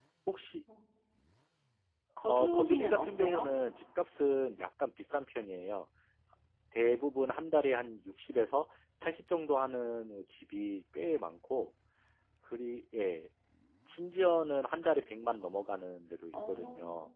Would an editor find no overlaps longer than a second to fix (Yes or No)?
No